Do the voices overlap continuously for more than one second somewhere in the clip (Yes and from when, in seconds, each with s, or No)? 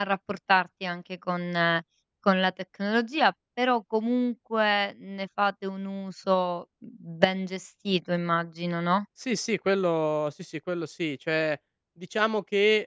No